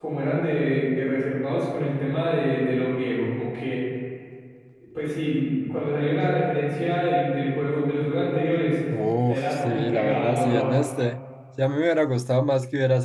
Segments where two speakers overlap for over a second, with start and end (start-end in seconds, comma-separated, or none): 9.3-10.8